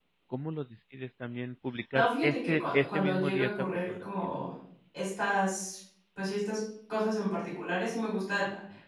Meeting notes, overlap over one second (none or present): present